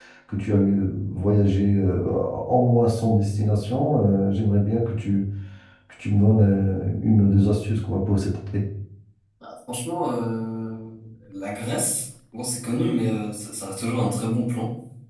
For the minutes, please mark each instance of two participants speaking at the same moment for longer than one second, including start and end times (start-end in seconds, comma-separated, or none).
none